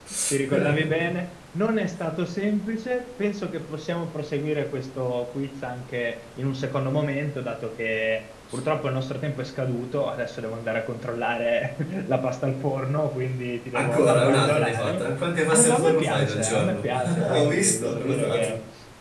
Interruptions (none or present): present